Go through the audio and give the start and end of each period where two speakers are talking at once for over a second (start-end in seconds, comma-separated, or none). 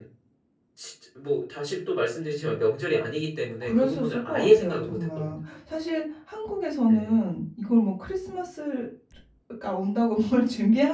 3.6-5.4